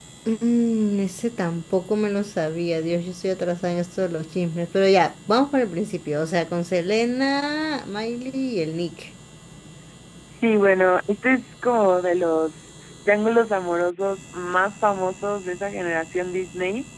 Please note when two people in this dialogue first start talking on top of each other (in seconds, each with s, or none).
none